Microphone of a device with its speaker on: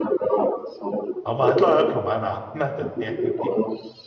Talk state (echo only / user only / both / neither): both